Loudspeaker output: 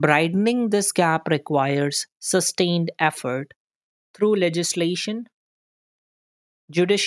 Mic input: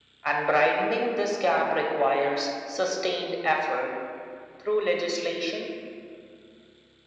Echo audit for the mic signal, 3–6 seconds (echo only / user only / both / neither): echo only